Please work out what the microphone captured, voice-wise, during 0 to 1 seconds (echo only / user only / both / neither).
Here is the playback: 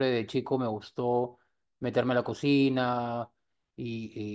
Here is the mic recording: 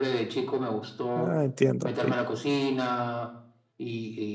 echo only